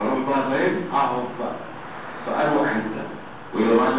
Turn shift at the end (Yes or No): No